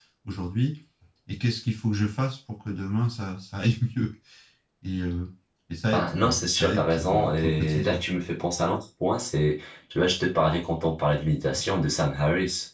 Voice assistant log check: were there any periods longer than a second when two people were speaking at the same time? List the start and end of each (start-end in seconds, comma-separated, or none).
5.9-8.0